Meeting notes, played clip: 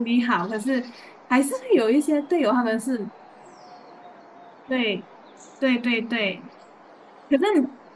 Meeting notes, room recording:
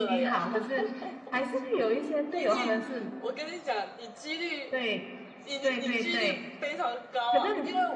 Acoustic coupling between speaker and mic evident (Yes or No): Yes